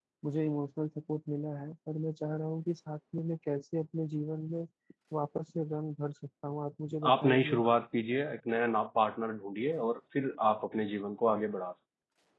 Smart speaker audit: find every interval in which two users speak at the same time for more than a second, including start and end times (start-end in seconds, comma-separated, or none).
none